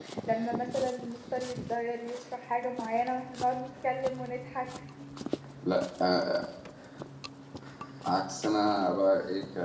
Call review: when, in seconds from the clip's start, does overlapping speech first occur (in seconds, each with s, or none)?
none